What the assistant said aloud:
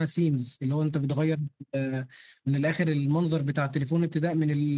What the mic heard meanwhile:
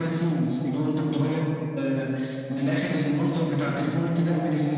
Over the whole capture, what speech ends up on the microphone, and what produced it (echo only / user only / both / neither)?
echo only